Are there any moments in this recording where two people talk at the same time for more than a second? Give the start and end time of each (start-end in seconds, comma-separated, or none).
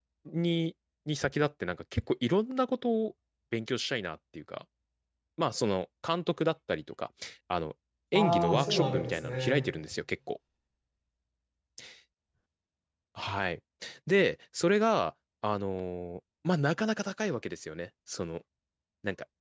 8.1-9.7